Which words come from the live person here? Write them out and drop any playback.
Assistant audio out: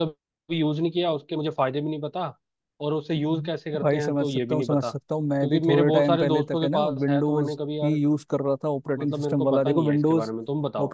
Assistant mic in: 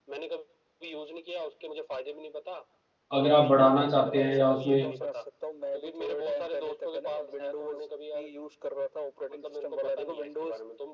अगर आप बढ़ाना चाहते हैं या उसमें

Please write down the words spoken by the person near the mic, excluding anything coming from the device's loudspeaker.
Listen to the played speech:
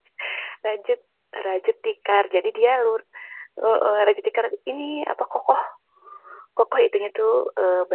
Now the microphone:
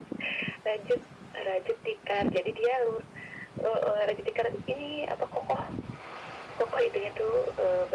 none

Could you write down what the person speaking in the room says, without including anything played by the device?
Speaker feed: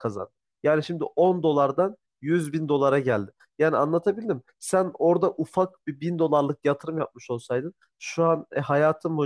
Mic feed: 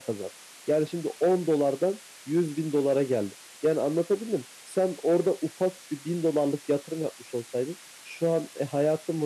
none

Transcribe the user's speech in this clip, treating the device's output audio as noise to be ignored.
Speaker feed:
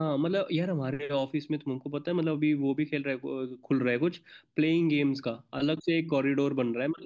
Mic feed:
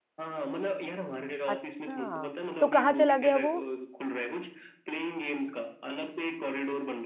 अच्छा तो कहाँ चला गया वो

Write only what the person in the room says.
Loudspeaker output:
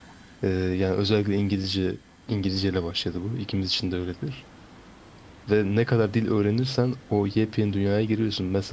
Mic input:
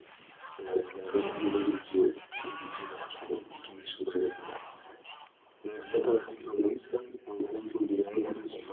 Hı hı.

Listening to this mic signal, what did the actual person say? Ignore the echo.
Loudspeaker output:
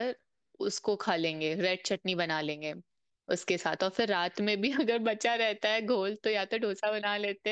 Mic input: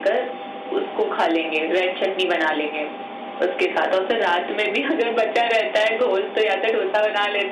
none

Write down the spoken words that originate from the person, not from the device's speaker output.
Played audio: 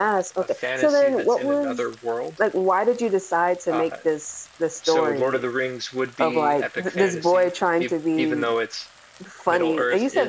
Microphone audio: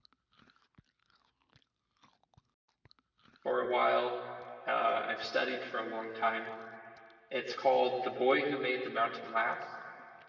for a while. Uh I've studied for a long time. It's called The Boy Who Made the Mountain Laugh.

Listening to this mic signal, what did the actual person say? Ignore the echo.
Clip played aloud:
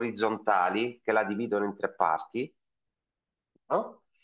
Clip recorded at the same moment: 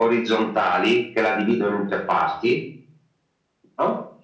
none

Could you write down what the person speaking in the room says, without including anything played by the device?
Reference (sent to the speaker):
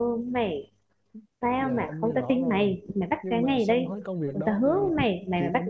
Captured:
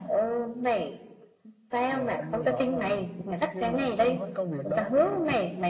none

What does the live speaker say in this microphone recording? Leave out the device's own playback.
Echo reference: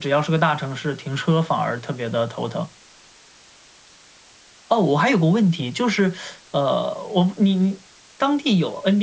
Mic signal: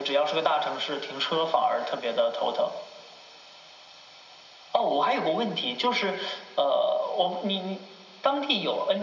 none

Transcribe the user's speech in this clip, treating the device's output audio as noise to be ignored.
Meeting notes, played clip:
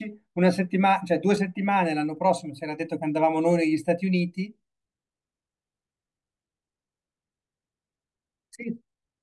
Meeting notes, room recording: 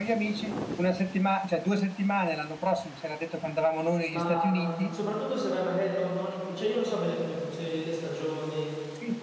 Ma mh, soprattutto se vai magari non, non in... pi- Cioè, io non so bene come funzionano le stagioni.

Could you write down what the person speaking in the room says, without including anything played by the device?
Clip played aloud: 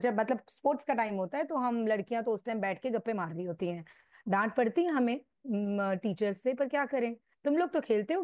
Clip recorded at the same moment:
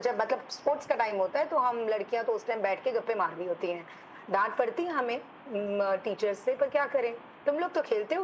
none

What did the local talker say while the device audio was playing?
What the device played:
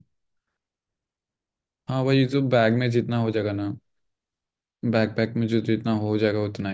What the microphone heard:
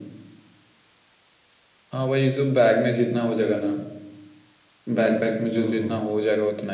ओहो

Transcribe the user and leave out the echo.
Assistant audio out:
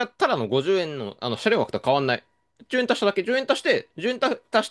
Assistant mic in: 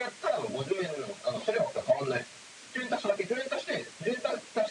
none

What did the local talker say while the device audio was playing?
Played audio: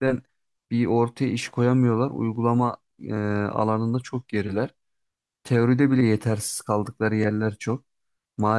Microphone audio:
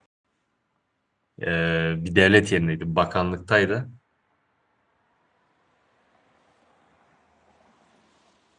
Ee, bir devlet yerindeydi, bakanlıktaydı.

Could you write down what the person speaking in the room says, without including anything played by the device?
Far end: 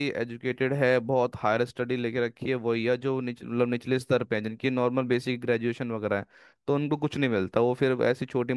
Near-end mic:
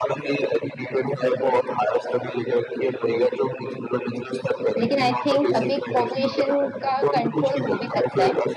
लेकिन आई थिंक अभी पॉपुलेशन का कंट्रोल हो भी सकता है

